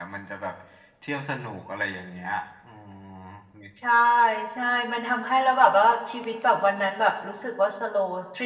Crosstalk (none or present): none